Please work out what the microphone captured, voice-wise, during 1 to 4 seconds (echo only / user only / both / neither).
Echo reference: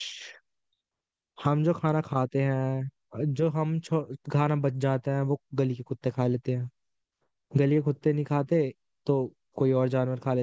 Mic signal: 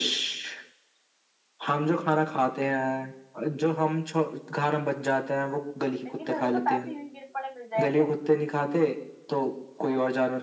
echo only